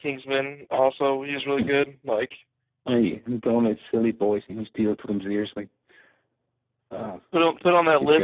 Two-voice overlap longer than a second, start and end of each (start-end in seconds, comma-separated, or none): none